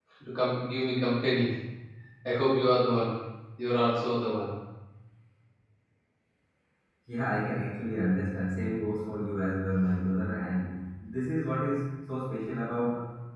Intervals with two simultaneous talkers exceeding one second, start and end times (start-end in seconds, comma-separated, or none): none